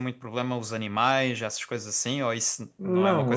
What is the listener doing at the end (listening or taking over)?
taking over